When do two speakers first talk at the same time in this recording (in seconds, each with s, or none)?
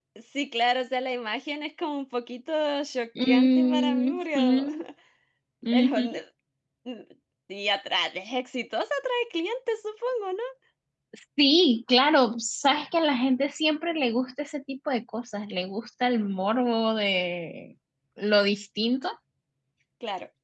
3.2 s